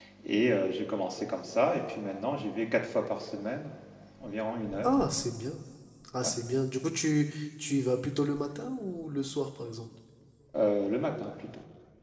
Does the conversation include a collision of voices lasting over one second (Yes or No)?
No